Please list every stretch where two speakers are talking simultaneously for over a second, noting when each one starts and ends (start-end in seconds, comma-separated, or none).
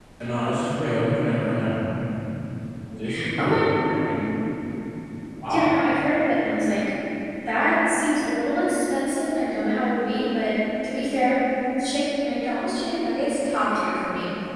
none